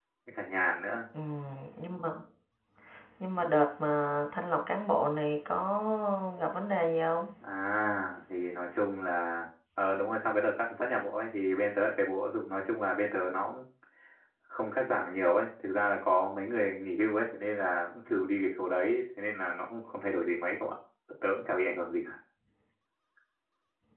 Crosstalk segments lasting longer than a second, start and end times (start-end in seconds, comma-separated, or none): none